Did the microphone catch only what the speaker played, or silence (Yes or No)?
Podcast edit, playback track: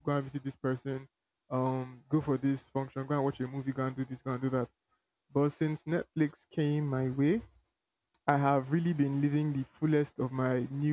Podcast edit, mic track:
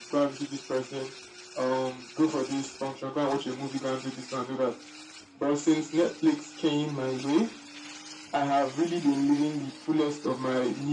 Yes